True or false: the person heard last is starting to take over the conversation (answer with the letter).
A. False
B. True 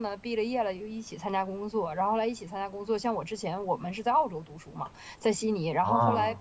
A